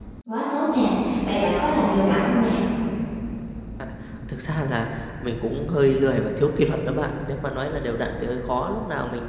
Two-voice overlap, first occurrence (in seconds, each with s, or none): none